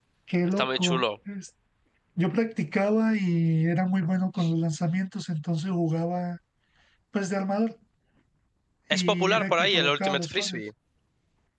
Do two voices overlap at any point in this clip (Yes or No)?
Yes